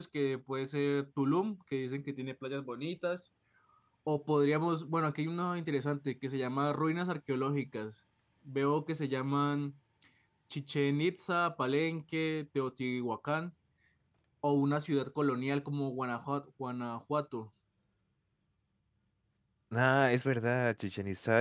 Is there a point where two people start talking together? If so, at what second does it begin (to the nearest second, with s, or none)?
none